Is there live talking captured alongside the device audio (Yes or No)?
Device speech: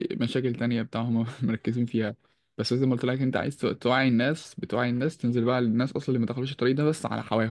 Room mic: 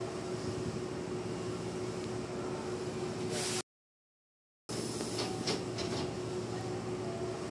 No